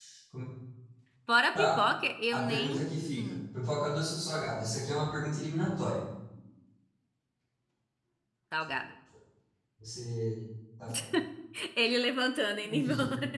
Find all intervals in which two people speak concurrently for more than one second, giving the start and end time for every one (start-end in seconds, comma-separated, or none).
none